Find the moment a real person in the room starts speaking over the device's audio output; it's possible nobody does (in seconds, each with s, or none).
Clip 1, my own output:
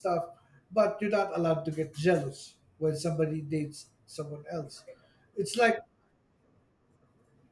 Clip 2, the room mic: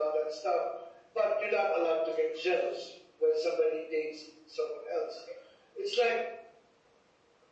none